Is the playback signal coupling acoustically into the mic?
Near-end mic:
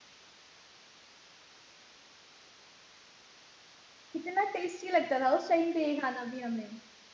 No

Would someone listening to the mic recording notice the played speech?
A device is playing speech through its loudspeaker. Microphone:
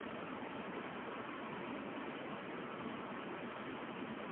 No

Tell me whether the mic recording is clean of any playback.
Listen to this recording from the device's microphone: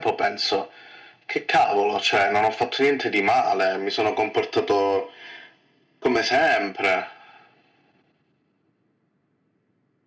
No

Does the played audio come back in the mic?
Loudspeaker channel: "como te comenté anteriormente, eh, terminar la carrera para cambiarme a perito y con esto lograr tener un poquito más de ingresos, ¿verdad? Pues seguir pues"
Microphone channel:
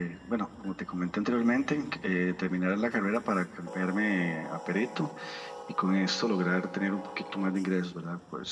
Yes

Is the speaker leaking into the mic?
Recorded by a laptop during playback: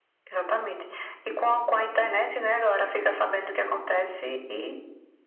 Yes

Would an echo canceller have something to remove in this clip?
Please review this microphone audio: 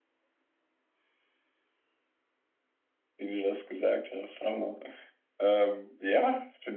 No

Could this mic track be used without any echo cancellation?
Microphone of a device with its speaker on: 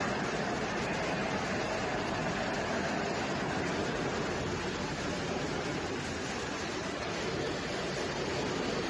Yes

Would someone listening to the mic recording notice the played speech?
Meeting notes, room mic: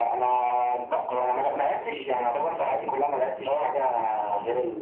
Yes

